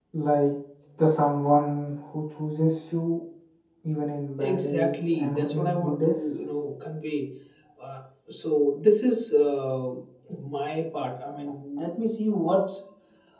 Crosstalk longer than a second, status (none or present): present